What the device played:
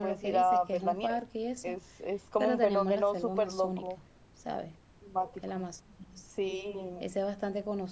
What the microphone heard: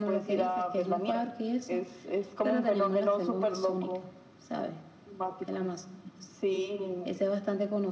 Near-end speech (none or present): none